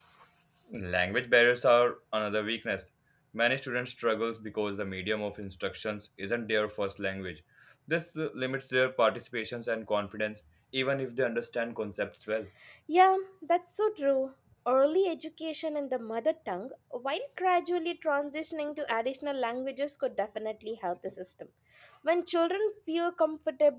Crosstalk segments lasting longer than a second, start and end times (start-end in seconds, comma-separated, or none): none